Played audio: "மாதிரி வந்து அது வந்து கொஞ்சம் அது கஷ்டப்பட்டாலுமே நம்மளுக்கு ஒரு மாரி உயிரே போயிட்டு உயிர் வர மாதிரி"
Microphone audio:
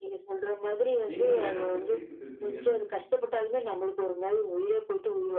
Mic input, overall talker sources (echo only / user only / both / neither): both